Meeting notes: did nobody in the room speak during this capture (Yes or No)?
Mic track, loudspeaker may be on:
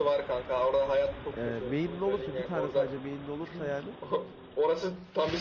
No